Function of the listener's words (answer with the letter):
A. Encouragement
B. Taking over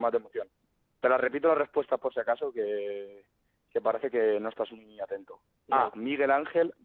A